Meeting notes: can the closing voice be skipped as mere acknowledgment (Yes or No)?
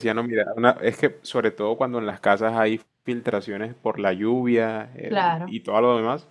Yes